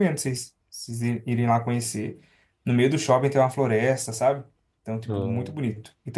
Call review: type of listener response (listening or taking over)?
listening